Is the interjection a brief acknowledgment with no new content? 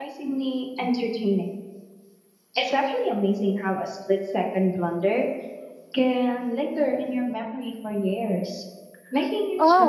No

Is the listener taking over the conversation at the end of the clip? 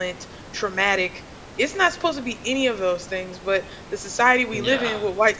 No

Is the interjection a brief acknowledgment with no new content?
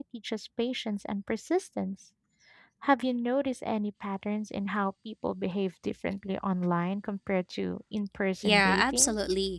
No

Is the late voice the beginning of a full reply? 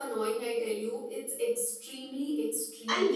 Yes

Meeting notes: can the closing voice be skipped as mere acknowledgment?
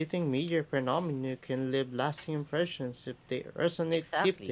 No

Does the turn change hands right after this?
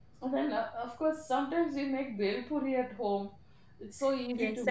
Yes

